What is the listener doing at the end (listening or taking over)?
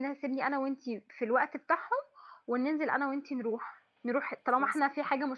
listening